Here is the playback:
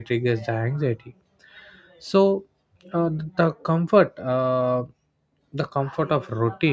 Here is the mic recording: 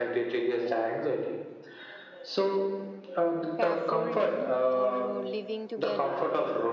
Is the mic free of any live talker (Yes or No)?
No